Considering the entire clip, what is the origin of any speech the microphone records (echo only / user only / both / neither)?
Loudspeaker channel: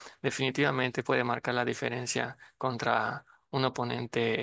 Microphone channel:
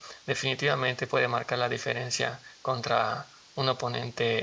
echo only